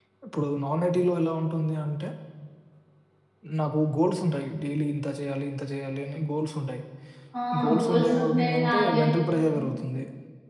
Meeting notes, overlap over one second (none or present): present